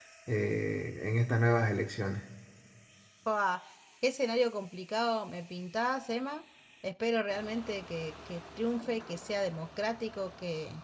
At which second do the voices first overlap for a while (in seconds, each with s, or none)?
none